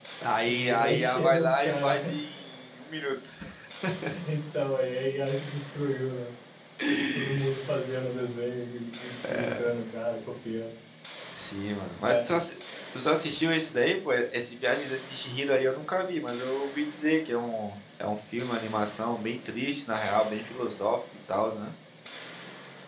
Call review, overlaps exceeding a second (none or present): present